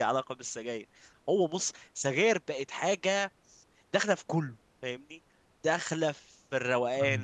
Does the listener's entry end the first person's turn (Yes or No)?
No